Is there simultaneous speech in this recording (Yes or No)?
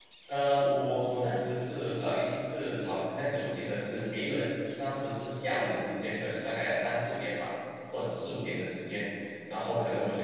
No